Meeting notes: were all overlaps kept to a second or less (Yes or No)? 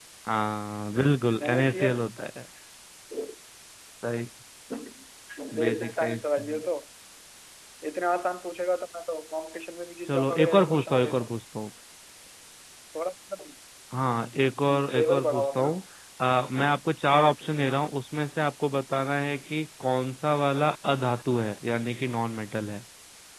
No